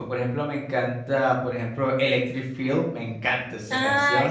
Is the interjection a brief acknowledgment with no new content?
No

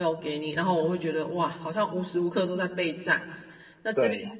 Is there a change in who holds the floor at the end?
No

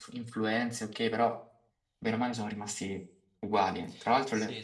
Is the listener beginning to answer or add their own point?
No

